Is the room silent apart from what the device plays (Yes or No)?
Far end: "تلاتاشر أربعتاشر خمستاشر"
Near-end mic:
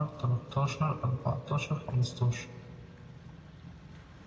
Yes